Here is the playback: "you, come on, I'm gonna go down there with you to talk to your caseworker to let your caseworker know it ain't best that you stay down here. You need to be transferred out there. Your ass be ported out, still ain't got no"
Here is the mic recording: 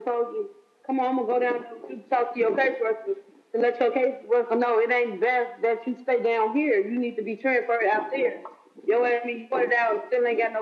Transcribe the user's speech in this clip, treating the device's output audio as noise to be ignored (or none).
none